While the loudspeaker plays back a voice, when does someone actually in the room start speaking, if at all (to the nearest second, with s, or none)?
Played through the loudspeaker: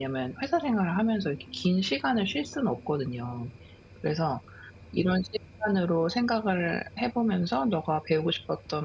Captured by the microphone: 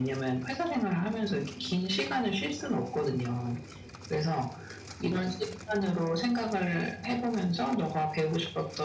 none